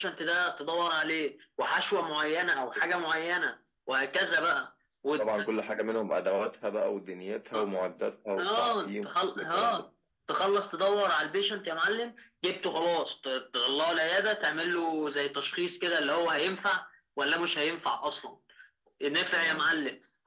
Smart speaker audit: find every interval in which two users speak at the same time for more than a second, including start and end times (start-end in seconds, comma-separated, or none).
8.4-9.8